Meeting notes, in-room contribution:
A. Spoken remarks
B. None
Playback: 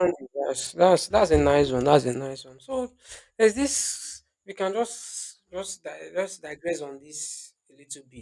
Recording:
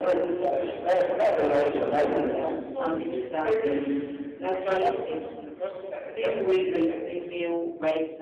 A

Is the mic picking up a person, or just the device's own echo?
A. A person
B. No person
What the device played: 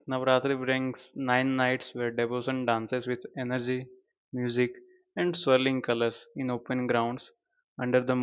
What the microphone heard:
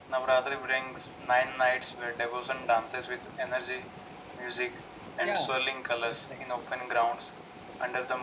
A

